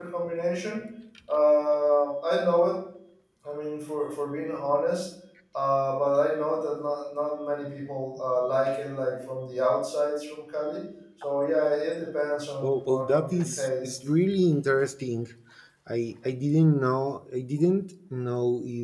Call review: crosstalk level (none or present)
present